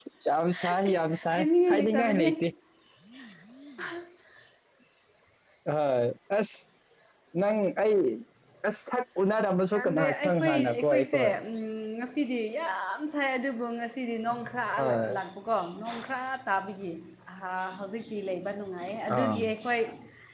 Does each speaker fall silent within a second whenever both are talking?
No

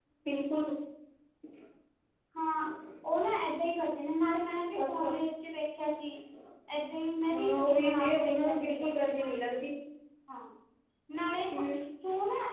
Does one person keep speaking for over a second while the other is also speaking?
Yes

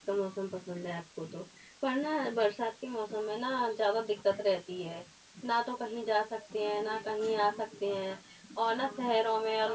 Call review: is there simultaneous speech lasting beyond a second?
No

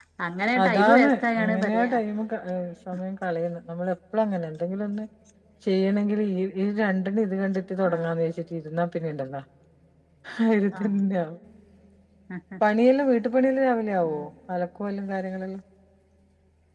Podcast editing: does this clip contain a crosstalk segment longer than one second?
Yes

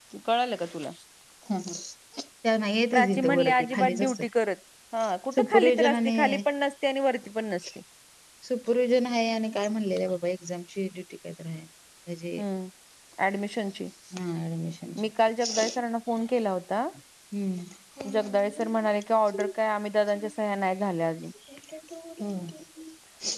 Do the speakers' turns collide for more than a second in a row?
Yes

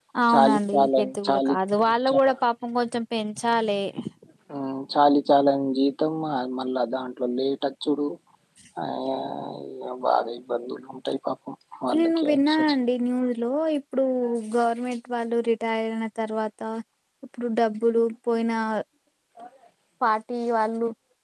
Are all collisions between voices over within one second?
No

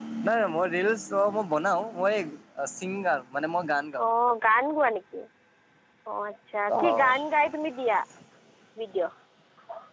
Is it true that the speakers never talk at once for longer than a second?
Yes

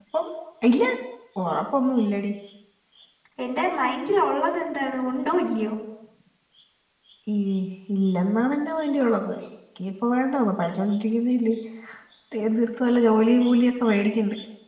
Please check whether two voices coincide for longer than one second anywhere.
No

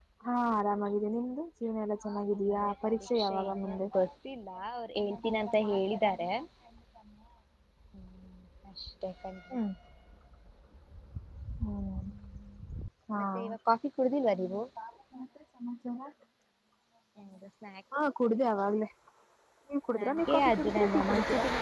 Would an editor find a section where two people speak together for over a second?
Yes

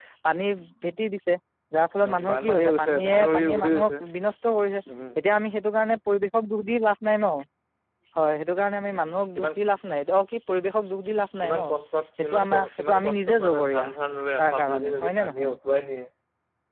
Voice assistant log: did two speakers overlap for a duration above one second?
Yes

